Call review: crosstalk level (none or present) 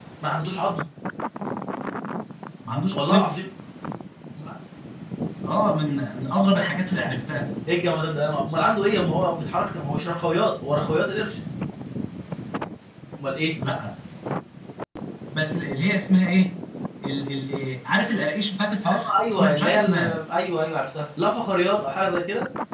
present